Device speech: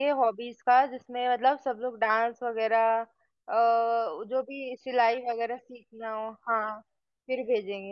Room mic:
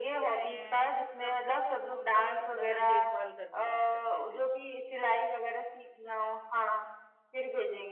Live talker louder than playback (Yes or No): No